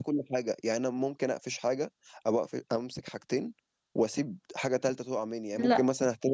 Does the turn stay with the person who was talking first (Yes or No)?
Yes